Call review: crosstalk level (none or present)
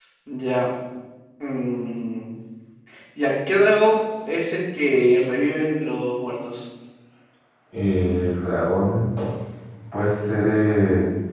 none